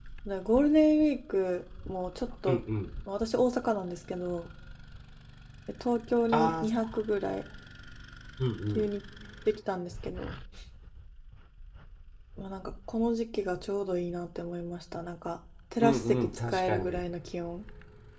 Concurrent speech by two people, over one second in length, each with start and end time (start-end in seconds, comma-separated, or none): 15.8-17.0